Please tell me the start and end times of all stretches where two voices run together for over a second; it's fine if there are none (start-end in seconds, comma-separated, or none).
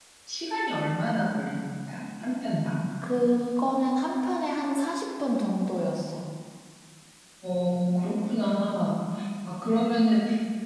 none